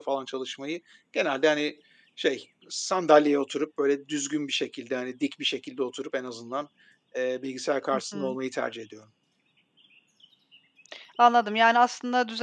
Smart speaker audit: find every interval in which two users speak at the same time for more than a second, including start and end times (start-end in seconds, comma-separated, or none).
none